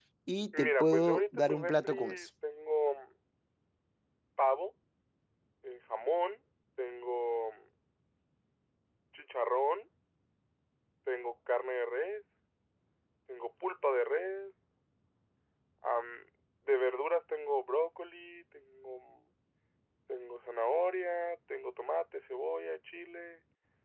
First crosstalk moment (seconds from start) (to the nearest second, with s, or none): 1 s